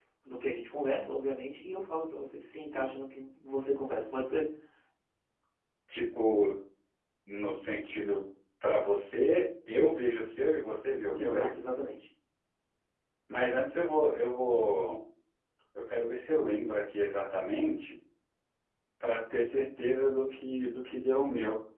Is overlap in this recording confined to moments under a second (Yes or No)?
Yes